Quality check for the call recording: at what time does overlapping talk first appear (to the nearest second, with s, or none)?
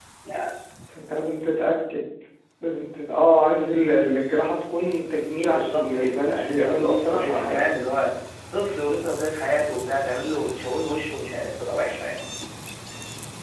5 s